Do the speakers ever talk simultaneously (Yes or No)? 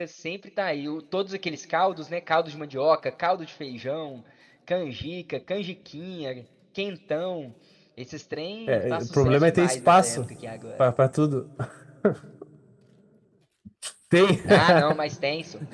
Yes